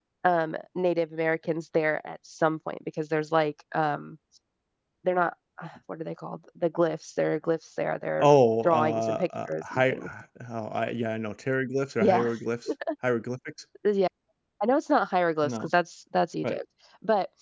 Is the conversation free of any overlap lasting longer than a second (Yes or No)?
No